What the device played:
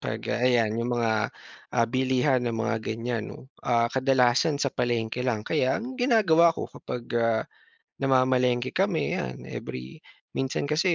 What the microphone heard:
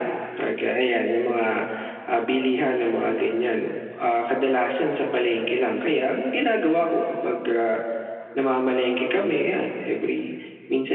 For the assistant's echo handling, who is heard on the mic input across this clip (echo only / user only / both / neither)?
echo only